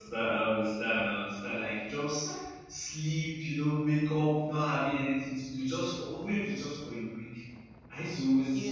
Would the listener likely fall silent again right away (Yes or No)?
Yes